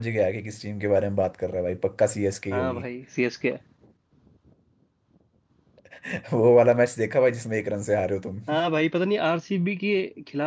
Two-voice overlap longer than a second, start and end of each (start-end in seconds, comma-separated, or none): none